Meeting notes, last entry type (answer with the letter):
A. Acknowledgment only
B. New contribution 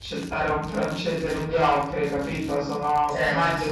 A